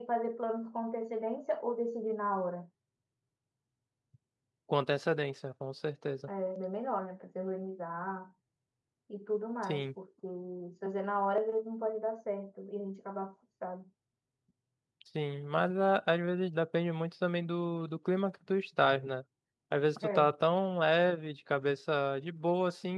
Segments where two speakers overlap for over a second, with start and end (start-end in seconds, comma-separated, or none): none